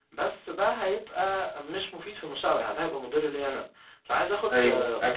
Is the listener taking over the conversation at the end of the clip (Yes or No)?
No